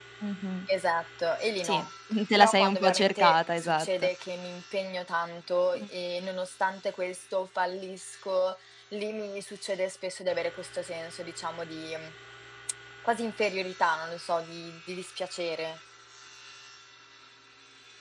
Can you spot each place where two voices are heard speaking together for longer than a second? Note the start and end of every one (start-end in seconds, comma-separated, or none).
2.4-4.1